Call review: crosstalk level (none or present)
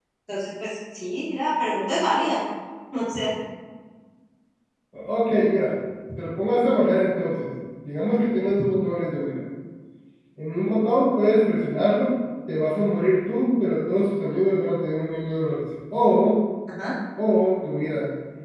none